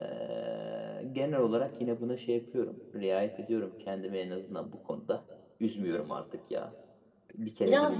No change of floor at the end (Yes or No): No